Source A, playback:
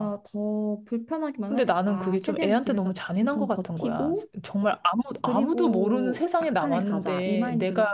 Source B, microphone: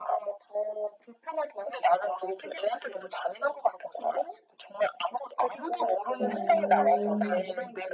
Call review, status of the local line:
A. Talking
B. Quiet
A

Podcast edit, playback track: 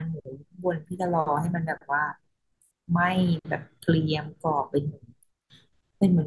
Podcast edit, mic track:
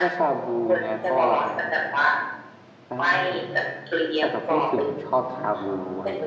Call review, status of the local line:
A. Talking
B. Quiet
A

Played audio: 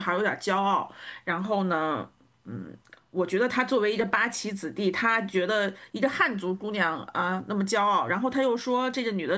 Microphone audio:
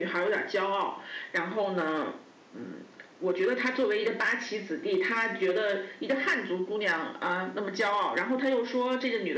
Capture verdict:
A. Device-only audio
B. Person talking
A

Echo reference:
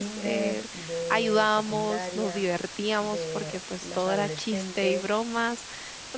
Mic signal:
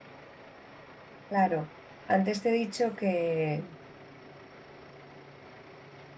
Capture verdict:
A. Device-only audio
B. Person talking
B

